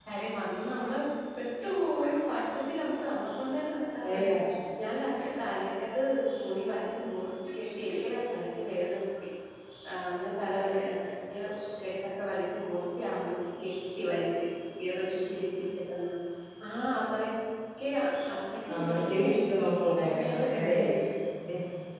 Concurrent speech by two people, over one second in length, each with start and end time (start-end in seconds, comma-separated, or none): 18.7-20.9